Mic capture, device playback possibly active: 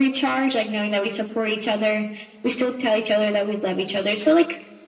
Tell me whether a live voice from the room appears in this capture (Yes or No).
No